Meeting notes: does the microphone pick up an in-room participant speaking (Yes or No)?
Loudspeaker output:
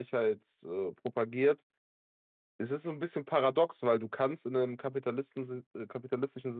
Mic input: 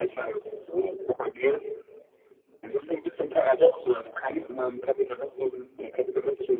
No